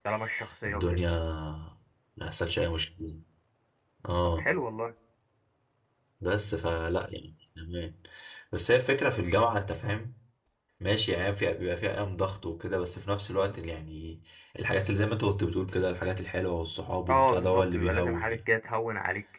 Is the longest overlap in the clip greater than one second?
Yes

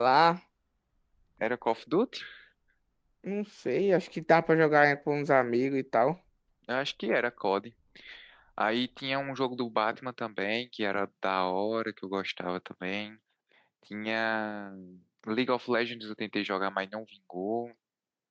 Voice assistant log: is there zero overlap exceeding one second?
Yes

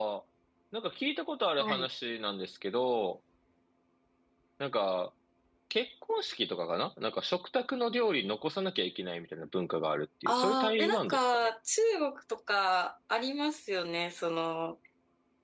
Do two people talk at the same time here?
Yes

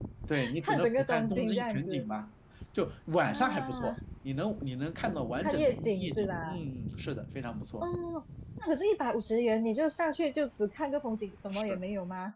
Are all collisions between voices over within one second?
No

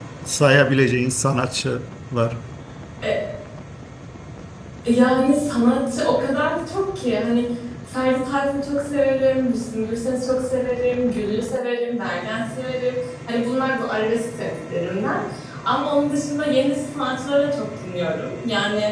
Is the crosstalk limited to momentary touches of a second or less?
Yes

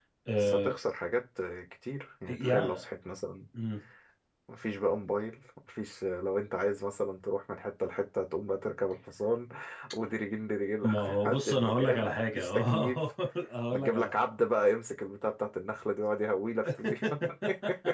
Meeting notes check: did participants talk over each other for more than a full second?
Yes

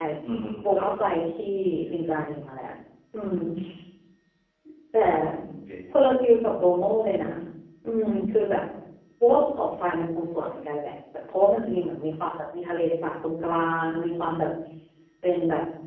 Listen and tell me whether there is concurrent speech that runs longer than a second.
No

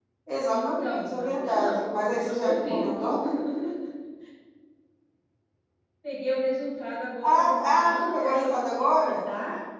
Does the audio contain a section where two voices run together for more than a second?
Yes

